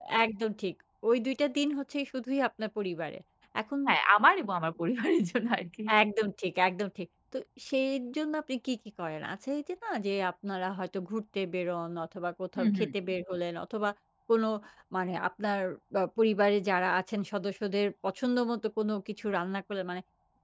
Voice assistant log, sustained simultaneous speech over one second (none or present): none